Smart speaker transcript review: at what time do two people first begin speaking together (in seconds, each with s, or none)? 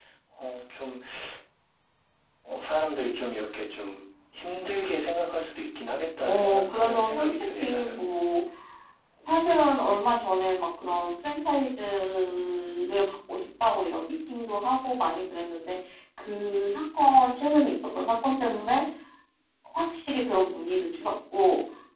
6.2 s